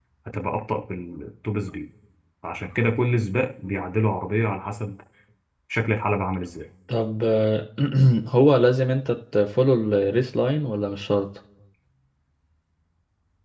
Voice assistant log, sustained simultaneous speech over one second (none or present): none